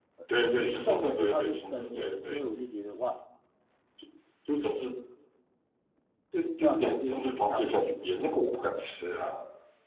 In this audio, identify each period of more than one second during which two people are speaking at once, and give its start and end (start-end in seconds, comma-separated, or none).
0.8-2.4, 6.6-7.9